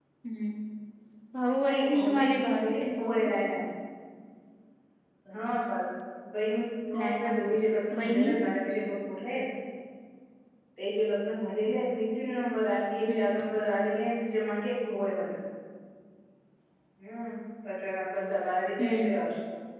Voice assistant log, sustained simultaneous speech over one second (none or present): present